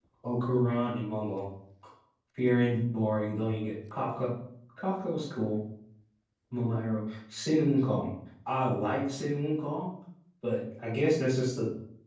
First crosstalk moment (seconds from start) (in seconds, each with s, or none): none